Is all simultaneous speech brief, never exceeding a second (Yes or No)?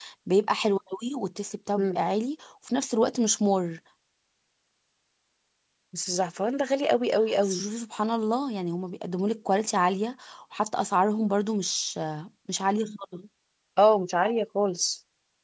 Yes